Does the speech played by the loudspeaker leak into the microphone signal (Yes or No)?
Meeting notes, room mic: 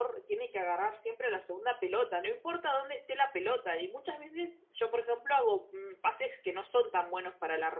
No